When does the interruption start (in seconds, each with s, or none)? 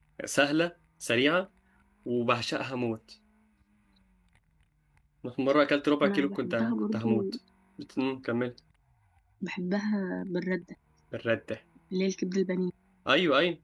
6.0 s